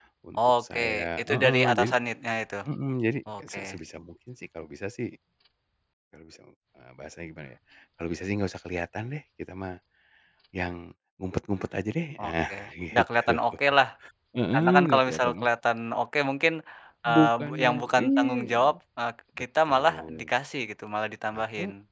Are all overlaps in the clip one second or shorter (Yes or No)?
No